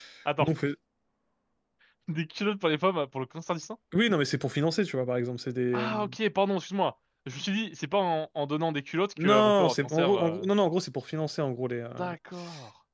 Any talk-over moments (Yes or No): Yes